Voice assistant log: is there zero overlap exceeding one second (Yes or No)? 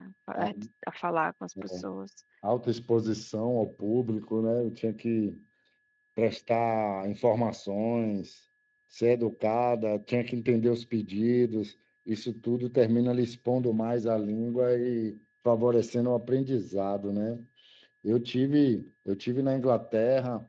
Yes